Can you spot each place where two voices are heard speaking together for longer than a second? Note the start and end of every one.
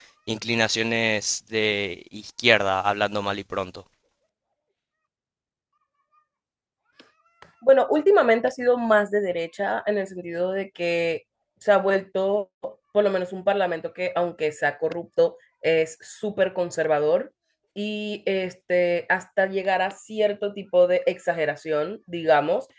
none

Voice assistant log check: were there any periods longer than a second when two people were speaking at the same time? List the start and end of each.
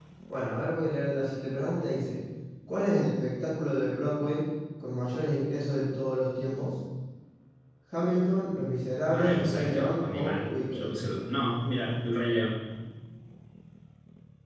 9.1-10.9

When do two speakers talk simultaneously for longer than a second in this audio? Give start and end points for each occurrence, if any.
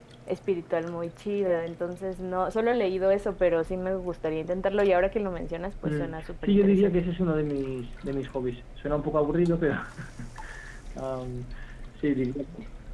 5.8-7.1

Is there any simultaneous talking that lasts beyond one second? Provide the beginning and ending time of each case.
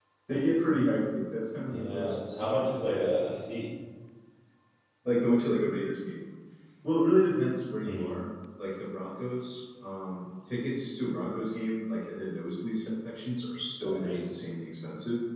1.6-3.1

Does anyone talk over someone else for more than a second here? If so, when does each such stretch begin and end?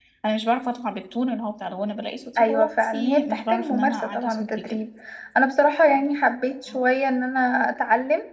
2.4-4.8

